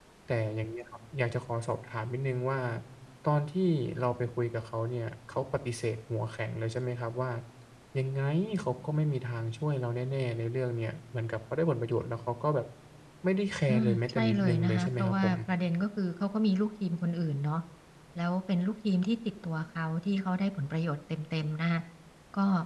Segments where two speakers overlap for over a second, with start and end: 13.7-15.3

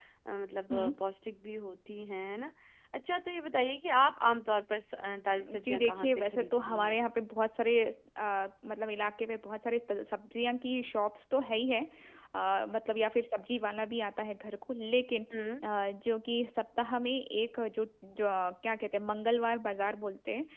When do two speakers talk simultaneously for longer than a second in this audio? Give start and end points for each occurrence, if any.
5.6-7.0

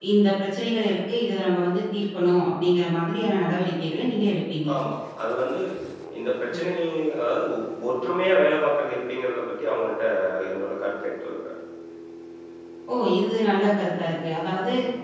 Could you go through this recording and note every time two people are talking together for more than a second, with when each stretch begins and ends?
none

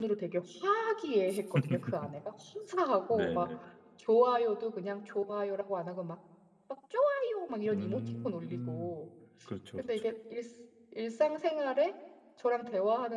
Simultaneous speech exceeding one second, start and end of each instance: 7.7-8.9

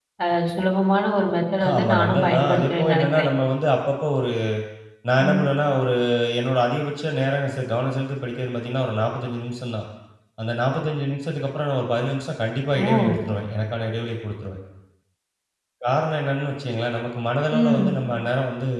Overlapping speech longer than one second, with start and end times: 1.8-3.3

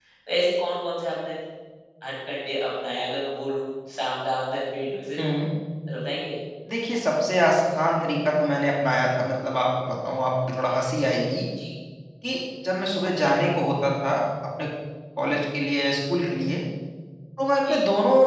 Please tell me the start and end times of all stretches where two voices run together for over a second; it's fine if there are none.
none

